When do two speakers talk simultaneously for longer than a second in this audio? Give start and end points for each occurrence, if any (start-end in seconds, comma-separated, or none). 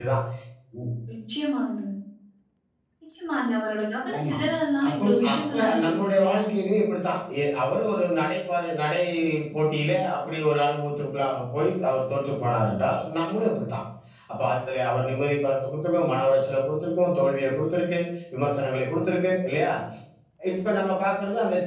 4.8-6.4